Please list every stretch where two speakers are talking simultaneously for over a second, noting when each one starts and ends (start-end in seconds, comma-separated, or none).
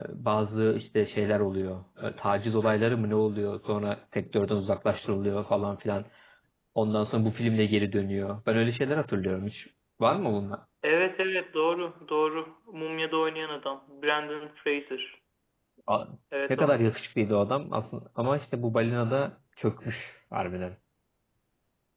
none